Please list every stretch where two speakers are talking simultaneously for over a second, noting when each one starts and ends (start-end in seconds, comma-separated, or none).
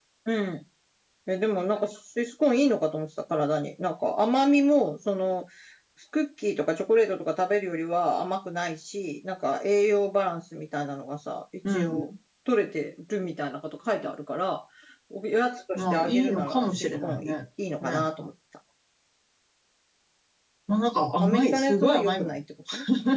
15.8-17.4, 21.2-22.4